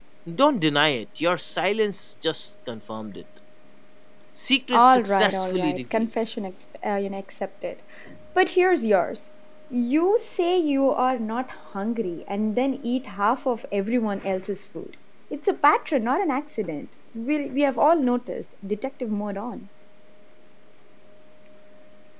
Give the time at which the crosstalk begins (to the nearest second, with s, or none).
5 s